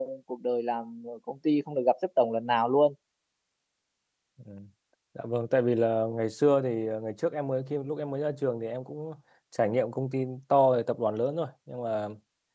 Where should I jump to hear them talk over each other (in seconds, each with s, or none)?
none